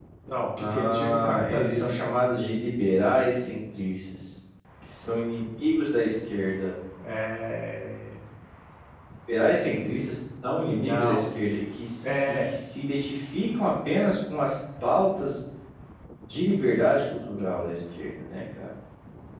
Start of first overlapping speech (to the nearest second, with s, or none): 1 s